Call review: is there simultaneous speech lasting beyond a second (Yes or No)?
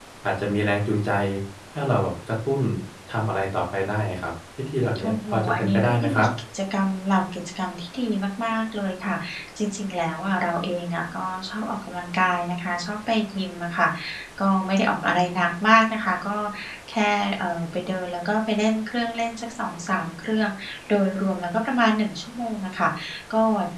Yes